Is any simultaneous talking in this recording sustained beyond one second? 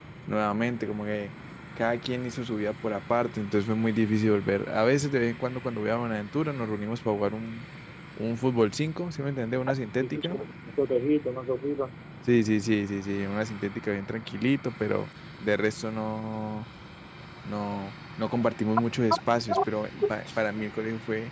No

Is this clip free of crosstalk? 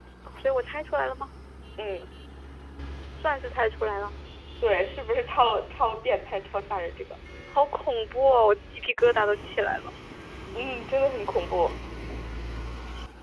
Yes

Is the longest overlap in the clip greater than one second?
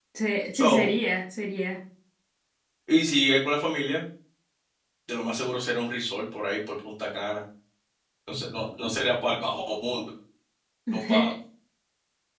No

